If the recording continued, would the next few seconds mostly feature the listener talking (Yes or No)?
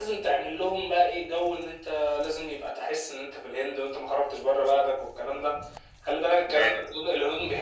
No